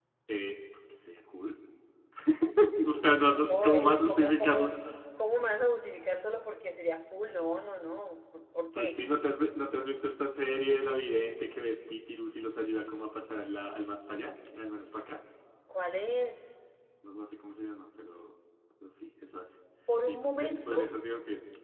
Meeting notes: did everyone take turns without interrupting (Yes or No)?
No